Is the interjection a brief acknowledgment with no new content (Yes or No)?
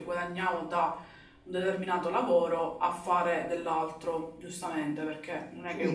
No